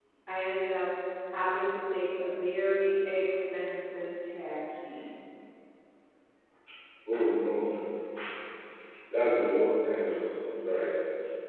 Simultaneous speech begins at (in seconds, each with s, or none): none